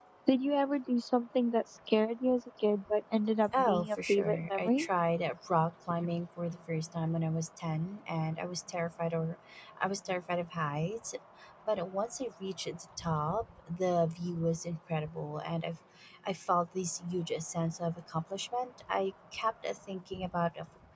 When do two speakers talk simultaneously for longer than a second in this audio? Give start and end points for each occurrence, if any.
3.6-4.9

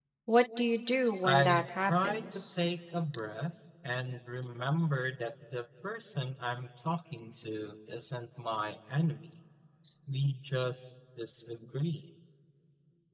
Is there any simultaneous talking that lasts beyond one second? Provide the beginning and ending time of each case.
1.2-2.5

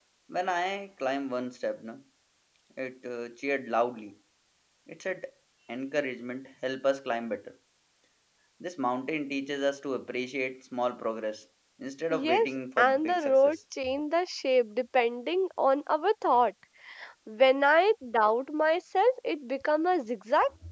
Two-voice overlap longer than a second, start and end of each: 12.1-13.6

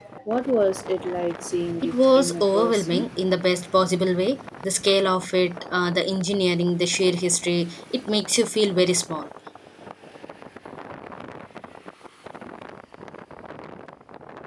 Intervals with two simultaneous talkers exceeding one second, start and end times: 1.8-3.0

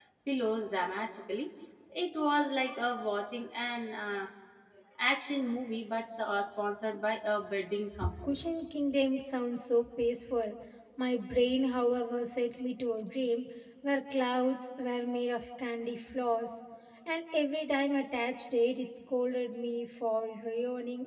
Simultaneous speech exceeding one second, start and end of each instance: none

